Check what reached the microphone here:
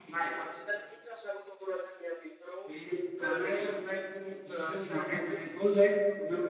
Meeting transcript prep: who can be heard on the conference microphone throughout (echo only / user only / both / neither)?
both